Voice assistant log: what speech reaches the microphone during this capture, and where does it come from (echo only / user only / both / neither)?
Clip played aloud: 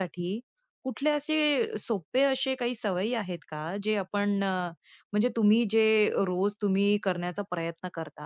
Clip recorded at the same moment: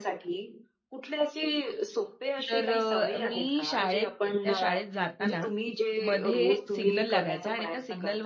both